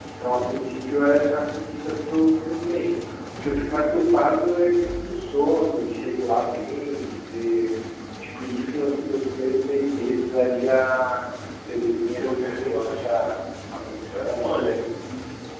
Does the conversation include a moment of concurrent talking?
Yes, from 12.0 s

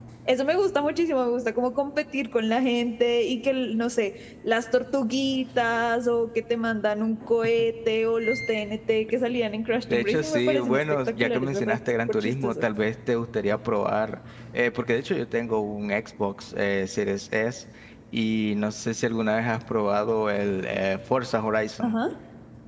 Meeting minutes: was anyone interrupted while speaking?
Yes, from 9.8 s

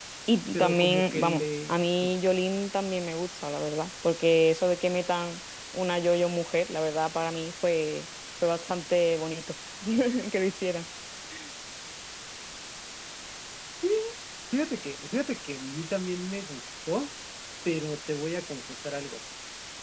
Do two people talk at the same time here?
Yes, from 0.5 s

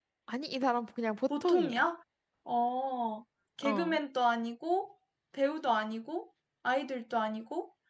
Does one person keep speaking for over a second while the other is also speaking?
No

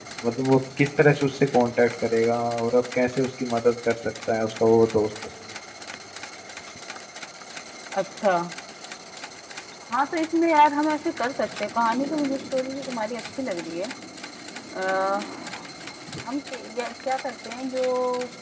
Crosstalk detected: No

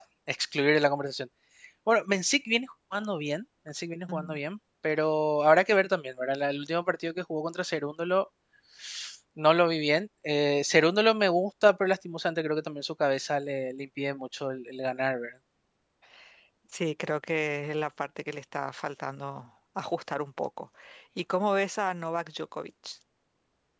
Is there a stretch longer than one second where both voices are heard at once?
No

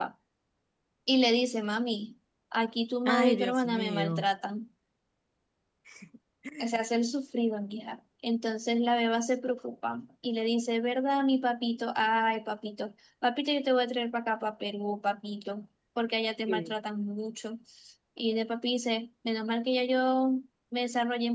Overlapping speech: Yes, from 3.0 s

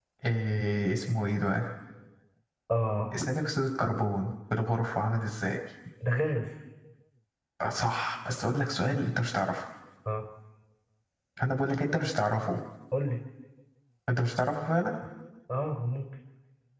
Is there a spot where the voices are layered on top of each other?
No

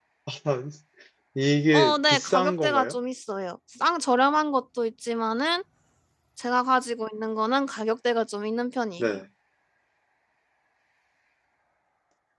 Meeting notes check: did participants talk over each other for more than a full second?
Yes, from 1.7 s

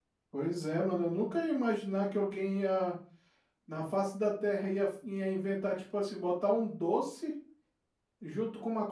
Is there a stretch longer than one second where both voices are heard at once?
No

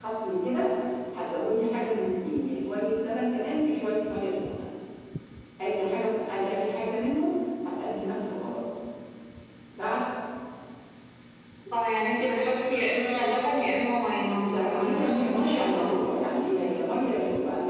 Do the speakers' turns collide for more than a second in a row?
Yes, from 14.5 s

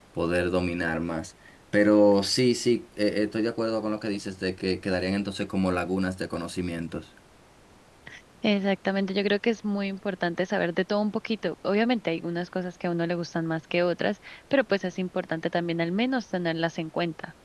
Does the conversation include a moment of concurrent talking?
No

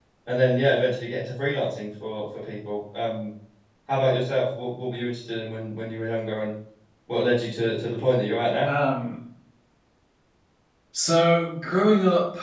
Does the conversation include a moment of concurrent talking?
No

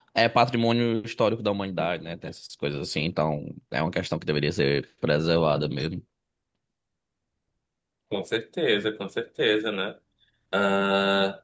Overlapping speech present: No

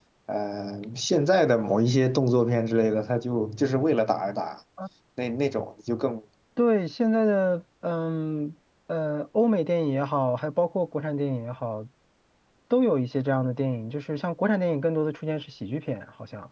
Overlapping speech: No

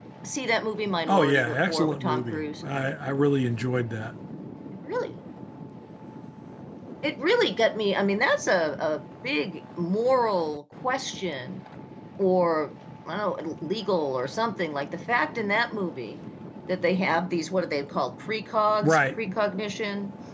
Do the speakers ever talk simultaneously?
Yes, from 1.1 s

